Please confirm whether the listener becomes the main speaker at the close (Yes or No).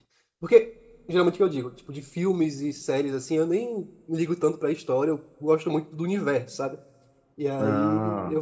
No